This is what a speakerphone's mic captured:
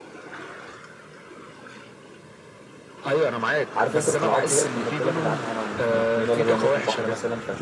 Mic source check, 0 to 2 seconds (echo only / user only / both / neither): neither